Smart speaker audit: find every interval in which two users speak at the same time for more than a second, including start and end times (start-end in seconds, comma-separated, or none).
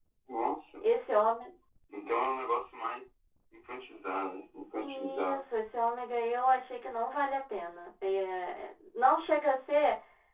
none